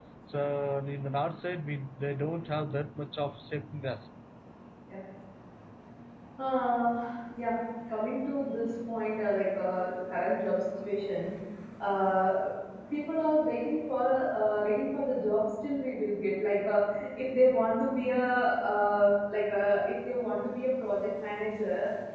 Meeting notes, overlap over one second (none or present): none